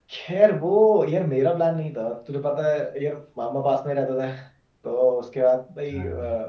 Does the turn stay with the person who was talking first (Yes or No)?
Yes